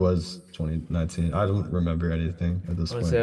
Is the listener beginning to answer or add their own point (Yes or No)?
Yes